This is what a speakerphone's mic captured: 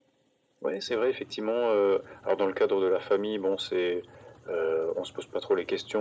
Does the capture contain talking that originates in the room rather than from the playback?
No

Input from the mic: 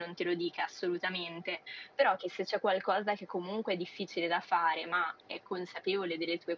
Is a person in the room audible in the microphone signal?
Yes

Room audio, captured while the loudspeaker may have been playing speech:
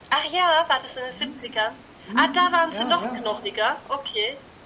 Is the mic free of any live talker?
No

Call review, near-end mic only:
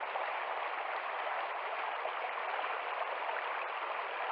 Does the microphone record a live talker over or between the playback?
No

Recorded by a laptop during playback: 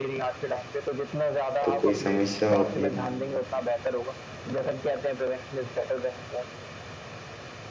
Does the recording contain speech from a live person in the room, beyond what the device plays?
Yes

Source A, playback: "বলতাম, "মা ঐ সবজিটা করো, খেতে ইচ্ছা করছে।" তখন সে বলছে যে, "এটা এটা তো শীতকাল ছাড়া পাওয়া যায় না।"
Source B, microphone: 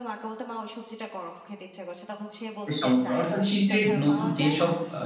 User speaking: Yes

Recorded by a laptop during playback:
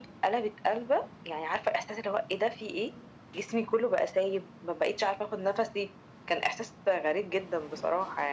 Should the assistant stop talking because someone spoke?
No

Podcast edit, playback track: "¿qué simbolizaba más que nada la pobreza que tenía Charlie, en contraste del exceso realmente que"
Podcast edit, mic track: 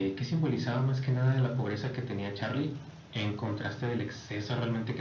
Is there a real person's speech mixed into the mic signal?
No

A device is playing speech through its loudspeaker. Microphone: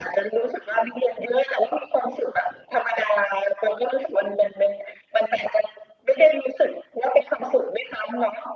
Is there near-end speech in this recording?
No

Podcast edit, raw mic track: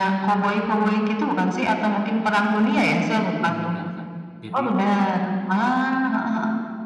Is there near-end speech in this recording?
Yes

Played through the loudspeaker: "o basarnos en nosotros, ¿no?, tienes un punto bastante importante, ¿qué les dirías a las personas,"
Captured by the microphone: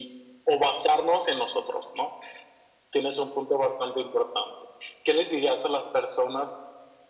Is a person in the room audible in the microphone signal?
No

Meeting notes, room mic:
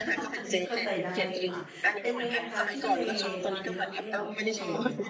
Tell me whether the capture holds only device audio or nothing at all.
No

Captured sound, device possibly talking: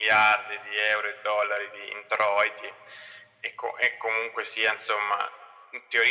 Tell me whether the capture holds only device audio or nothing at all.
Yes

